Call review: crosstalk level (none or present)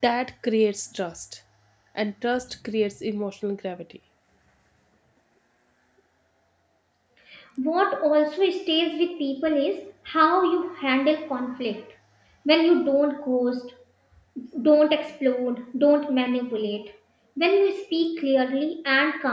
none